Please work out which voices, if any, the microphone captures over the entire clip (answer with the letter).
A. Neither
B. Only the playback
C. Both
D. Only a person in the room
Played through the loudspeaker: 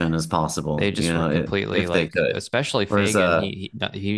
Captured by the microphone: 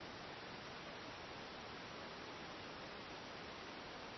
A